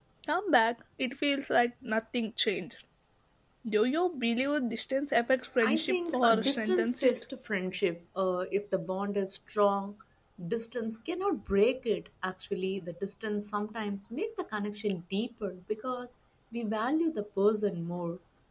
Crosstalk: present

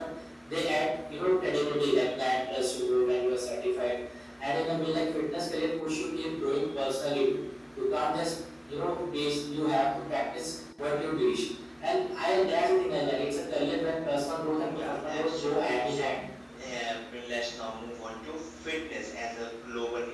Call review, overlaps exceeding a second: present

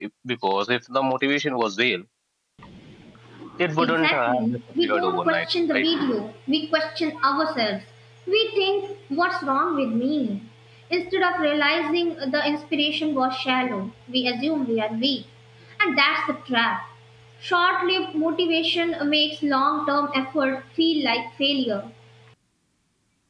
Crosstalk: present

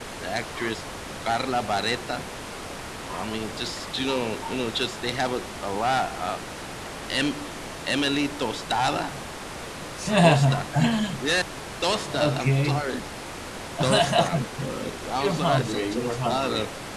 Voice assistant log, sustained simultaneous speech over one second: present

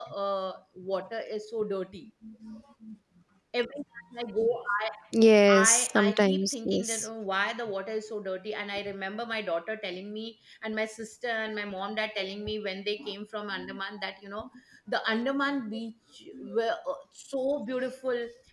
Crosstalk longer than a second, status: present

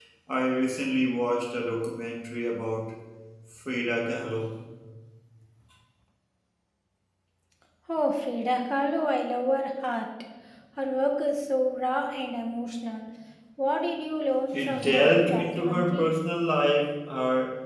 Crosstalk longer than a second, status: present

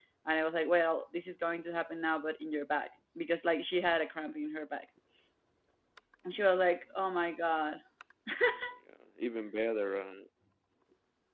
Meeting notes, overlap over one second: none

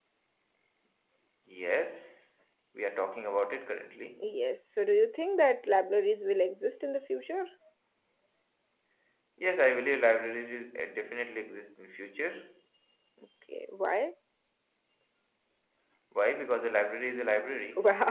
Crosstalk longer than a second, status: none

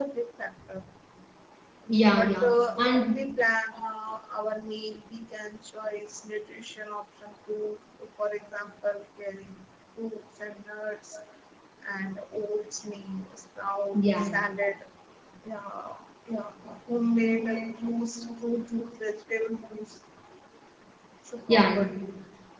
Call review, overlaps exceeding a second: present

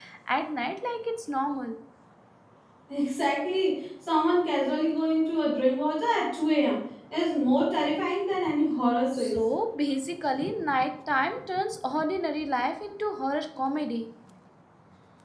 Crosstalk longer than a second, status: none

